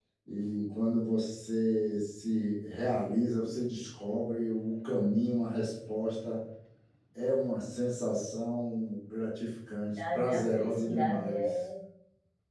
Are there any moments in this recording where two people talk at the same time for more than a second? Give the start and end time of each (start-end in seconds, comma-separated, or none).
10.0-11.4